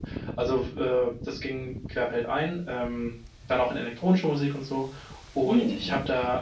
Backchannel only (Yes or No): Yes